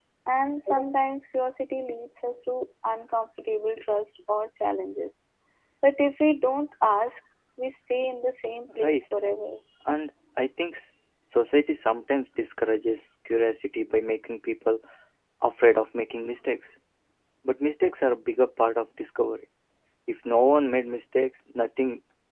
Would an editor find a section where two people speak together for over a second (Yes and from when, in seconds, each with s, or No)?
No